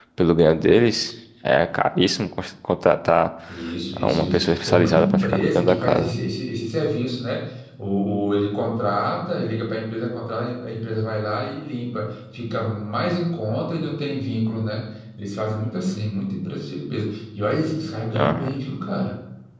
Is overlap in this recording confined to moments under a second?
No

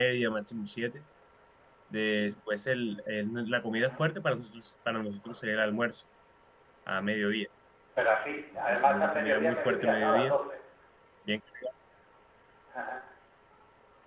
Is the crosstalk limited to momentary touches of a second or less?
No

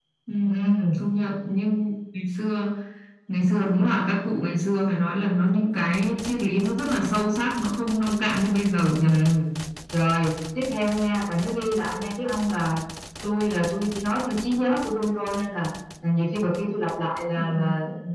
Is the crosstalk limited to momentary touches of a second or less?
Yes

